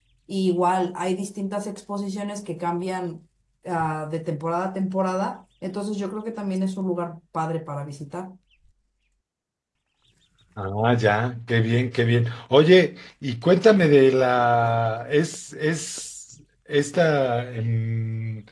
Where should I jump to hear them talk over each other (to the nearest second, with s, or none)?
none